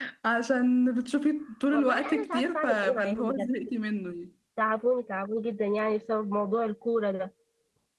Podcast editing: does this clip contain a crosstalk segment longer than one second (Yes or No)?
Yes